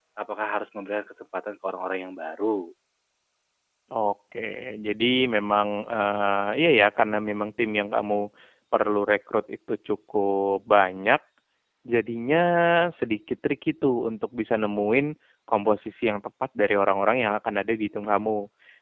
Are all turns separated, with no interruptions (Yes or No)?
Yes